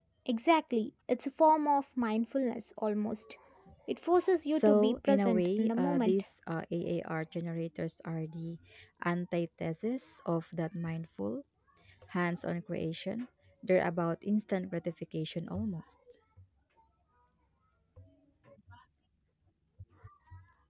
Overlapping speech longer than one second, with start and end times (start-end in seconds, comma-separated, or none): 4.5-6.2